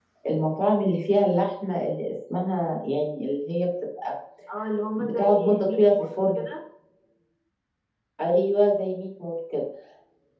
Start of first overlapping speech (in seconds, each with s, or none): 4.9 s